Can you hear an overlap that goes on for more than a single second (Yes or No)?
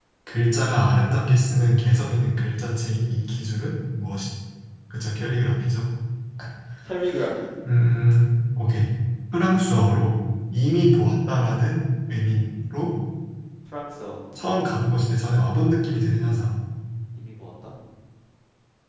No